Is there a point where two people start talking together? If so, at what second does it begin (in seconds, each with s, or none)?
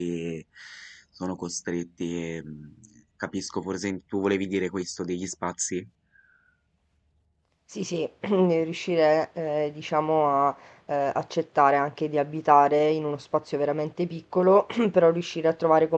none